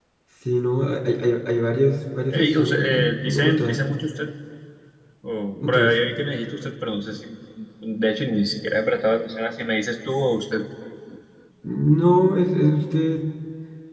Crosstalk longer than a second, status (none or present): present